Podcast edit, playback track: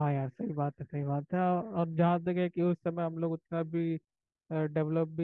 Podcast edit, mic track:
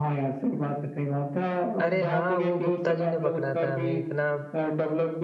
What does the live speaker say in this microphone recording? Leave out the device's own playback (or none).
अरे हाँ वो गुप्ता जी ने पकड़ा था हमें इतना